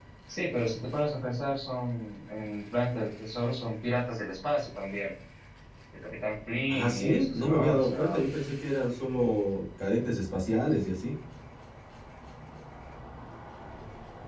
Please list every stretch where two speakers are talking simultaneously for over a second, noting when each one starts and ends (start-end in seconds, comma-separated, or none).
6.7-8.1